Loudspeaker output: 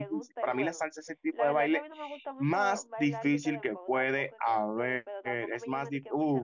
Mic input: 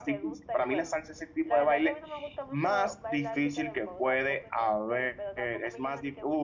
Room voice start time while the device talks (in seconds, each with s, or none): none